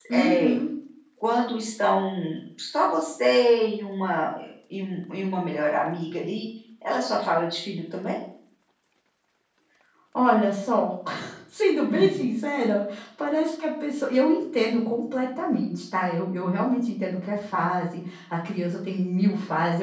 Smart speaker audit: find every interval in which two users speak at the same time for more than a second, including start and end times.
none

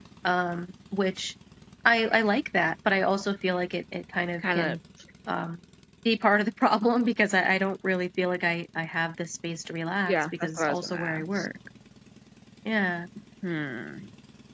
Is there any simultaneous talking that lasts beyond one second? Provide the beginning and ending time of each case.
10.0-11.5

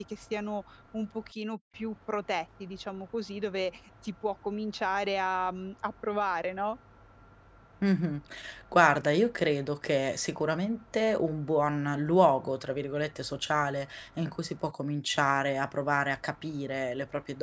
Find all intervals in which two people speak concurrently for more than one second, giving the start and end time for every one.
none

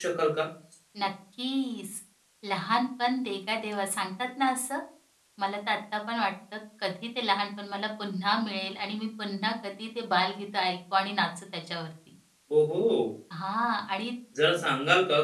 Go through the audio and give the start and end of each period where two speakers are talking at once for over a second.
none

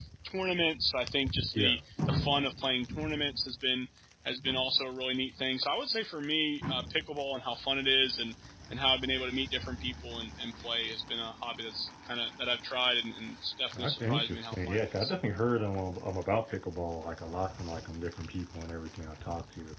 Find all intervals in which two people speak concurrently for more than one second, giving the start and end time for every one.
13.7-15.1

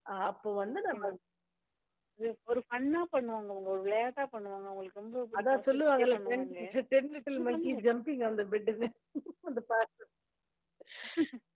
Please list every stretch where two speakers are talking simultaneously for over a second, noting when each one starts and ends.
5.4-6.6

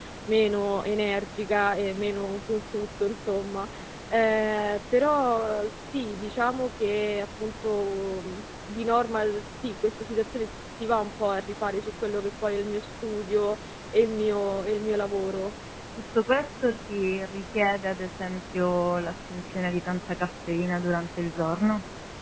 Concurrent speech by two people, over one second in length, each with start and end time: none

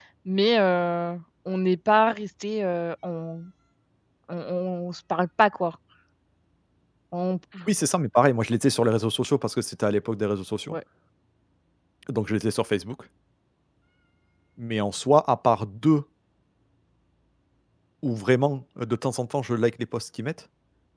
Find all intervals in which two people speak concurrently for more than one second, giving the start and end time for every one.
none

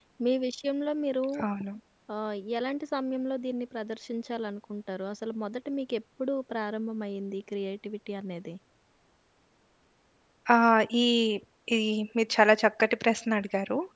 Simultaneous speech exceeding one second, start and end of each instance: none

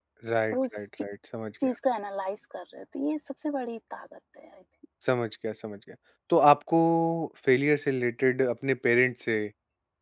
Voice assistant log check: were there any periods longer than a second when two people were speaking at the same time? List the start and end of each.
none

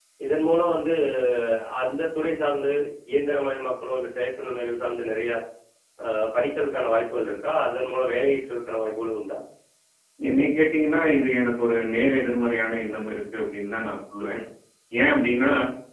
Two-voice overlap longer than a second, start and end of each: none

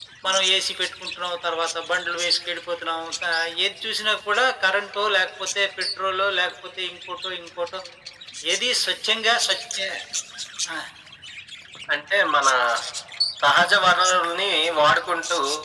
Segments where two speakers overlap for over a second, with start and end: none

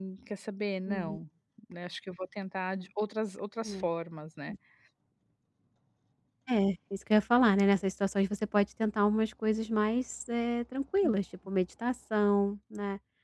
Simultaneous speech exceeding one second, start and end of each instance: none

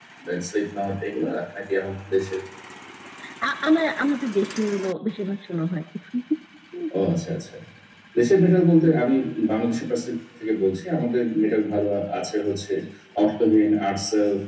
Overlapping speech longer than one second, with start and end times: none

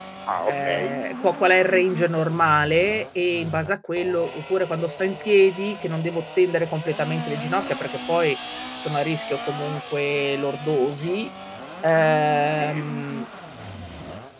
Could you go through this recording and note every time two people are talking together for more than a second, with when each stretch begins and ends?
none

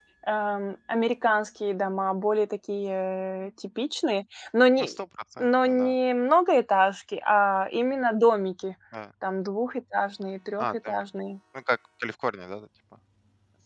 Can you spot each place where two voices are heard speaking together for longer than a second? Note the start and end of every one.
none

